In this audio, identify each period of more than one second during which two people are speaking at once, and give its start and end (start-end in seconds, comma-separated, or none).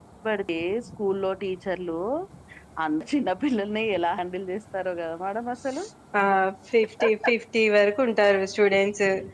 none